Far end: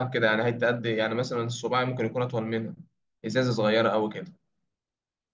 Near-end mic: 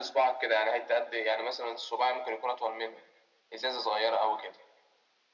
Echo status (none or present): present